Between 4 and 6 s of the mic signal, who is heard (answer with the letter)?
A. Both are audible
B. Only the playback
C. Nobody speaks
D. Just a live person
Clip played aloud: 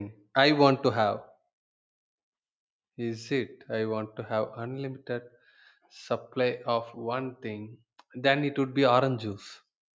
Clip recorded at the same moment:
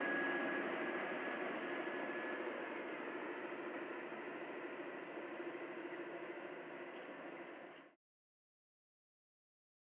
C